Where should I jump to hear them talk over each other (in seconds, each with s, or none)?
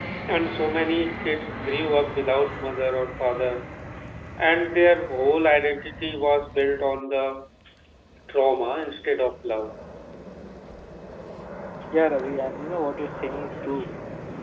none